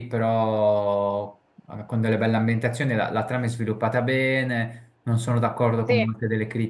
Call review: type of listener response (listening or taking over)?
listening